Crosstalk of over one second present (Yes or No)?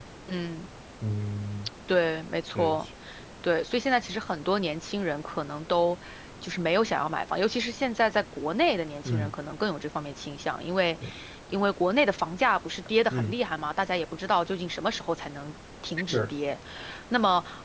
No